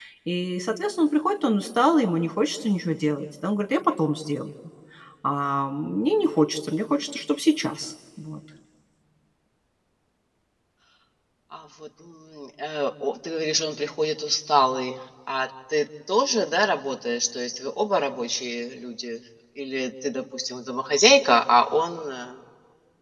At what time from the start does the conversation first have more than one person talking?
none

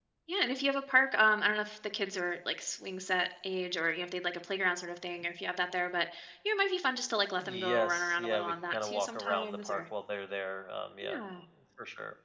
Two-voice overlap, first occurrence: 7.4 s

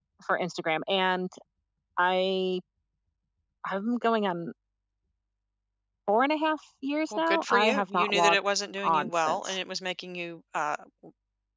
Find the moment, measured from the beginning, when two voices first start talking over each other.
7.1 s

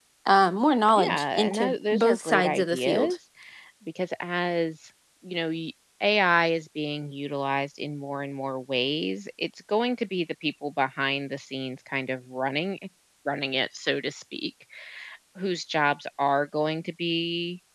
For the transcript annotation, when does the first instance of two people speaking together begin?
1.0 s

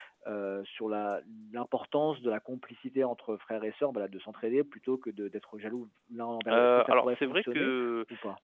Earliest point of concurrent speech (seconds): 6.4 s

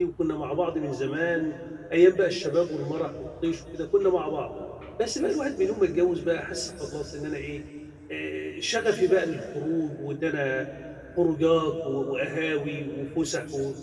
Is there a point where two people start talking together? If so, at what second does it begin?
none

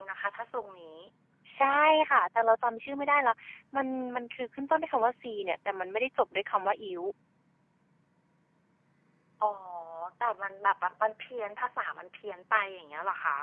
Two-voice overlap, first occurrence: none

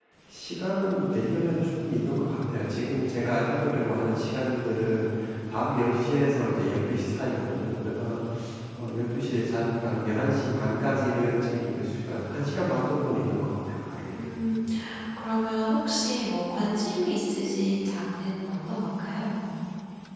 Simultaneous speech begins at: none

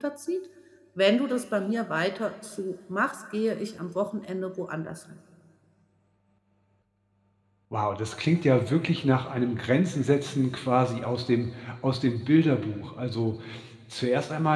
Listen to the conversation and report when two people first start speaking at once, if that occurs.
none

